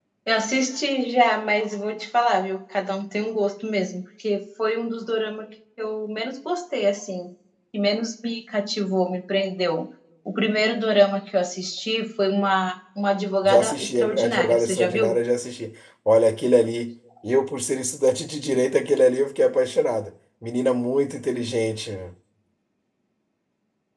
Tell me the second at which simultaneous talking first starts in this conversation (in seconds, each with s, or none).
13.4 s